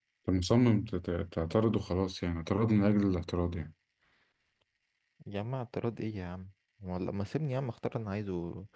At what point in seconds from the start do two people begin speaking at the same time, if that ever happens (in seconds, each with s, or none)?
none